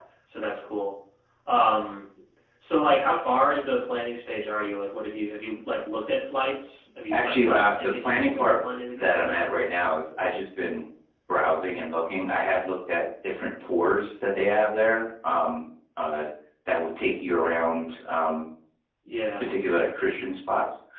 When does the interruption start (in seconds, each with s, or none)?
7.1 s